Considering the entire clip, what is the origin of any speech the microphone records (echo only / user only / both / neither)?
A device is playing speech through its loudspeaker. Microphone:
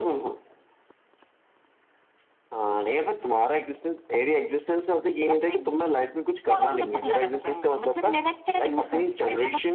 echo only